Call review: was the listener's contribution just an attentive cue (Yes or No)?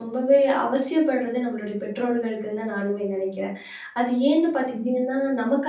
Yes